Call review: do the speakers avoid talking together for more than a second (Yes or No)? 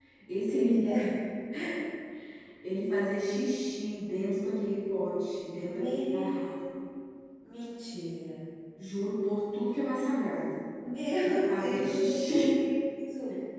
No